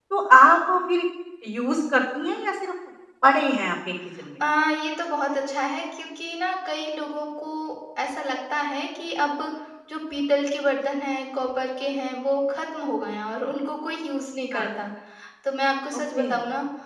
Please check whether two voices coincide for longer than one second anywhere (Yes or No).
No